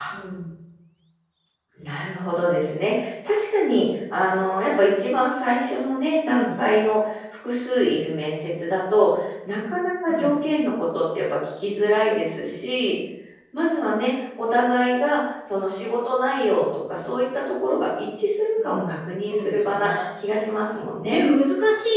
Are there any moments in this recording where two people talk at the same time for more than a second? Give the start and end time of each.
18.6-19.9

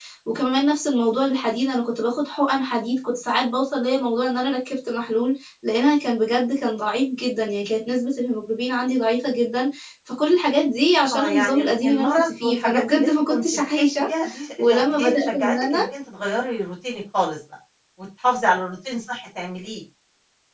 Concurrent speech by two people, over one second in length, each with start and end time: 11.1-14.1, 14.6-15.8

